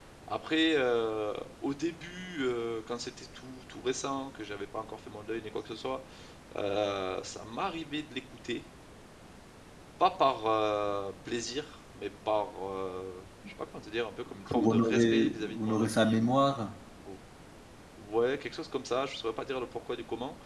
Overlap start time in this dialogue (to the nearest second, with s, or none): 14 s